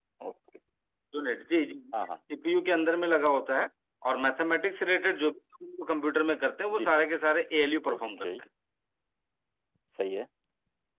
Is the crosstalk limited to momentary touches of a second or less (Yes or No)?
Yes